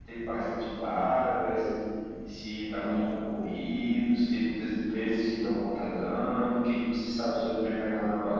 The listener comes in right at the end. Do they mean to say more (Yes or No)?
Yes